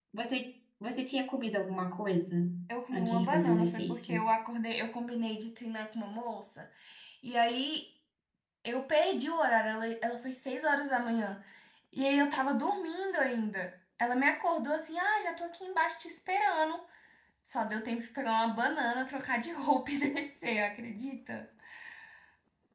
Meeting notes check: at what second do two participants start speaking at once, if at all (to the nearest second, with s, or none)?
3 s